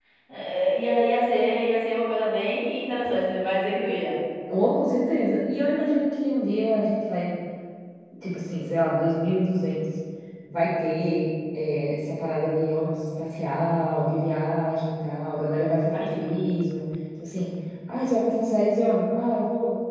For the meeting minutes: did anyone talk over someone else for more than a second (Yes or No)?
No